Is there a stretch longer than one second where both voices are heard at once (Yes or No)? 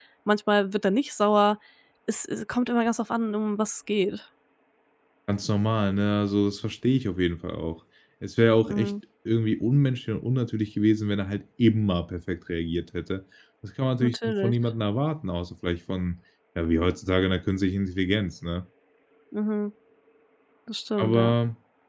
No